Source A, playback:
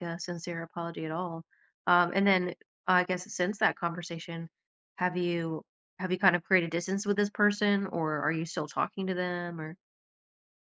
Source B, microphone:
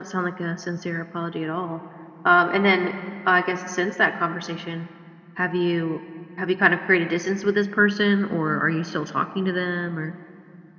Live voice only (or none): none